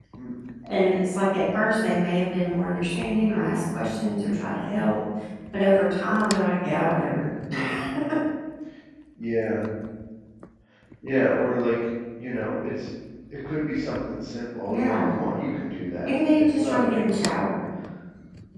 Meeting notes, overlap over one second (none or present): present